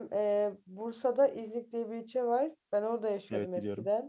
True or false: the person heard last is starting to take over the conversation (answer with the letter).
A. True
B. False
B